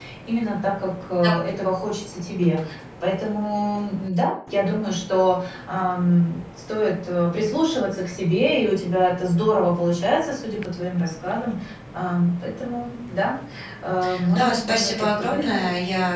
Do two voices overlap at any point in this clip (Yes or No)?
Yes